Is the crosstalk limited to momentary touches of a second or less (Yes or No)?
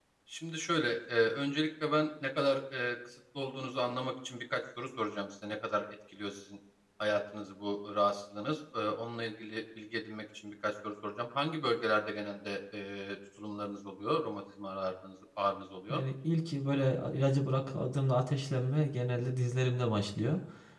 Yes